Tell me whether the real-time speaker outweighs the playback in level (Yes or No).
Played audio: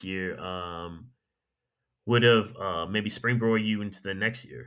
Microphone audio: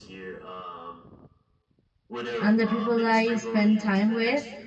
Yes